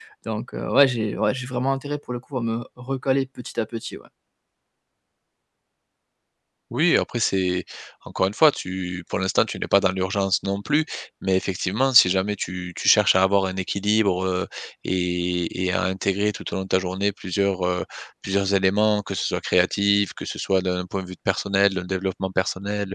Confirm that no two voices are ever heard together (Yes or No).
Yes